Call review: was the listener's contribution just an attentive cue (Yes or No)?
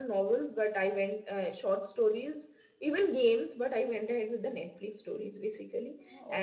Yes